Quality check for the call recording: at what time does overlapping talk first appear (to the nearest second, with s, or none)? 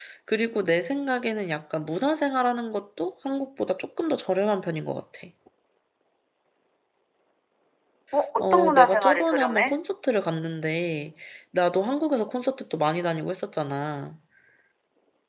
8 s